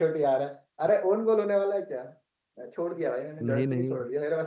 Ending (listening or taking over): listening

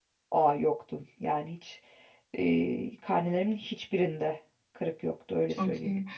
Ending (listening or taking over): taking over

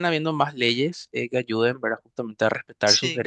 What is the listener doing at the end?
listening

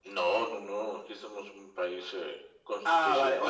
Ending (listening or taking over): taking over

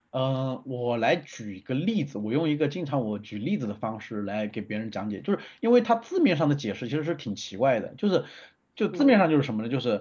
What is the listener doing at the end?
listening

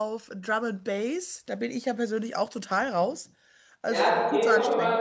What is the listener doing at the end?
taking over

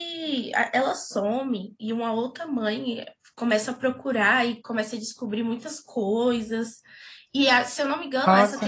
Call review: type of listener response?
listening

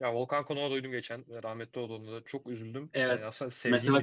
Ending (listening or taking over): taking over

